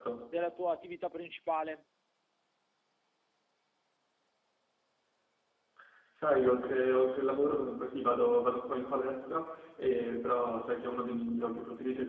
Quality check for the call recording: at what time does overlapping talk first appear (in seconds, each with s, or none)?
none